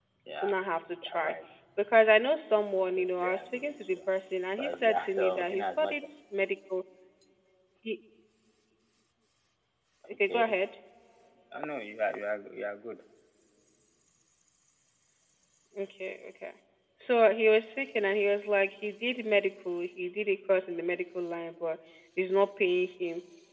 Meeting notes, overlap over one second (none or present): present